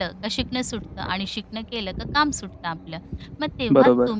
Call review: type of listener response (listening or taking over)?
listening